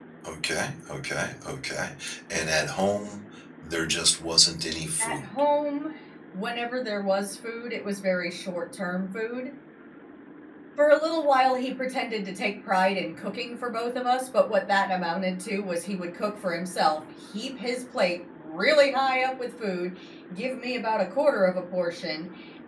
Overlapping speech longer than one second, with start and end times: none

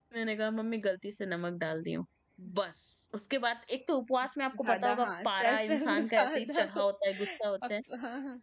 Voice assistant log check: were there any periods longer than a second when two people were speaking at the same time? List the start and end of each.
4.5-6.8

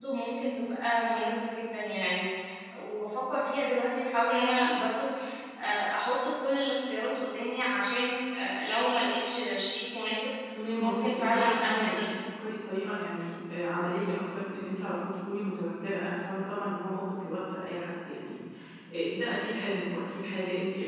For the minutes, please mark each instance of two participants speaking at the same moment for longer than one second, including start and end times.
10.8-12.2

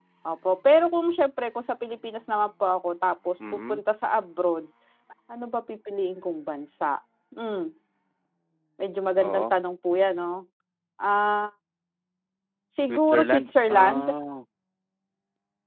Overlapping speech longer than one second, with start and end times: 12.9-14.1

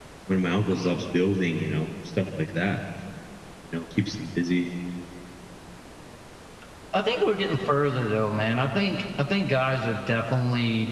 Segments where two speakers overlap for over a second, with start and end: none

